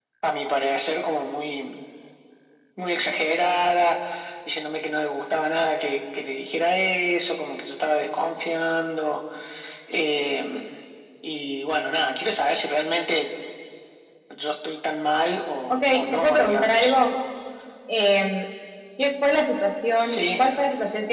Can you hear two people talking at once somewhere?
Yes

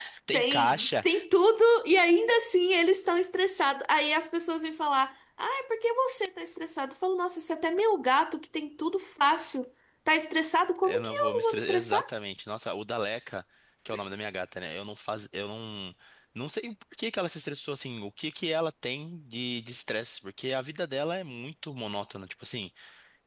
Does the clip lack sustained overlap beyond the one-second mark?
No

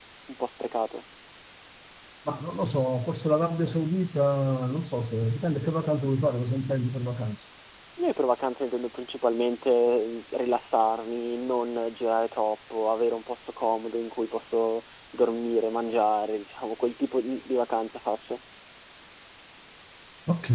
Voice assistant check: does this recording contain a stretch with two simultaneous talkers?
No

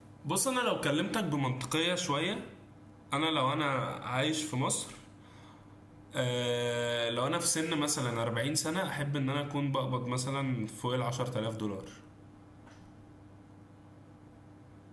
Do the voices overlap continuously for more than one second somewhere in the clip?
No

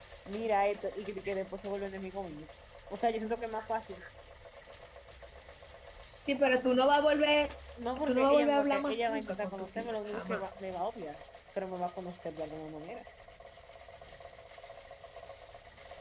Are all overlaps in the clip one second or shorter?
No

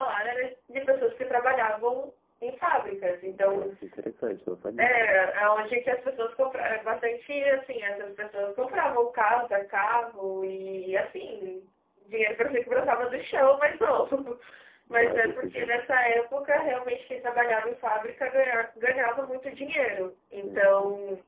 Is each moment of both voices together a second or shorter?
No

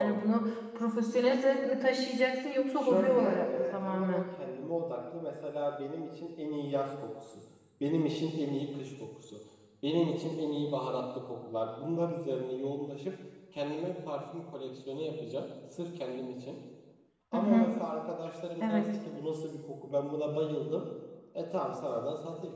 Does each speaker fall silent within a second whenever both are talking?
No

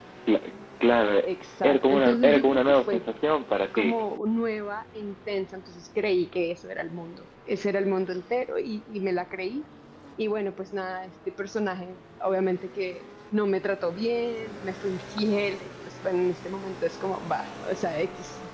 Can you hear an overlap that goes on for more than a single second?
Yes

